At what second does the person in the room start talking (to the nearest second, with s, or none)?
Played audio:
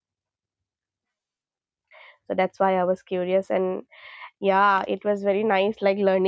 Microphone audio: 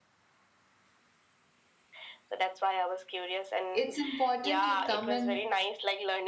4 s